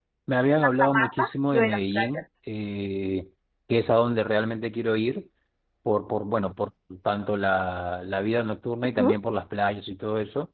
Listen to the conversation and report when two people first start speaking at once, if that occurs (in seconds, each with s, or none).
0.8 s